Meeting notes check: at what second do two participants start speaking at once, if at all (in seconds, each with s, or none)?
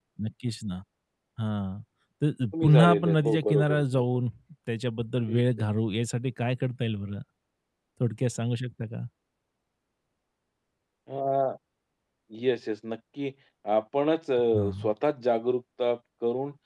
2.6 s